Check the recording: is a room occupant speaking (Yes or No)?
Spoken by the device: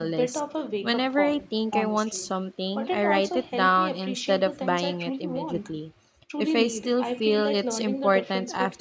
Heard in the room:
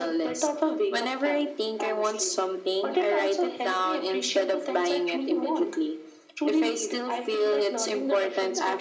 No